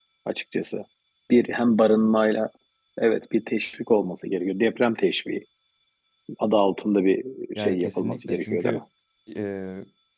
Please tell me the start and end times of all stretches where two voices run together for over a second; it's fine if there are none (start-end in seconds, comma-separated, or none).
7.5-8.8